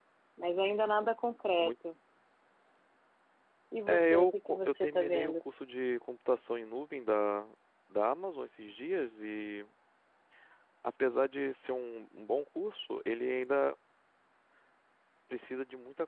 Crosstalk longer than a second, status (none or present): present